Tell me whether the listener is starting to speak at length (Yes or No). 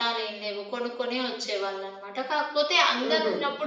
No